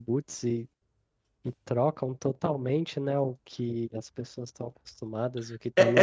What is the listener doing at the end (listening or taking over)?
taking over